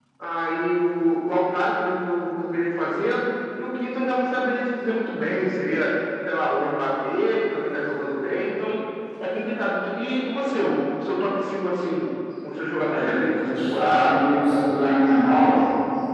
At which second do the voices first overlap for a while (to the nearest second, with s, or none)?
13 s